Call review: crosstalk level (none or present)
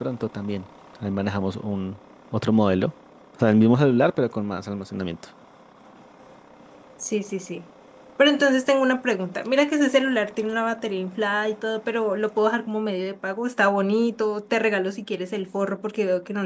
none